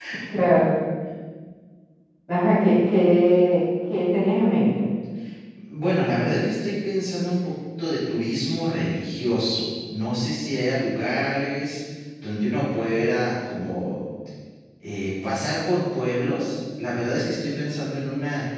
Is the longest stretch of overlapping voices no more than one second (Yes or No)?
Yes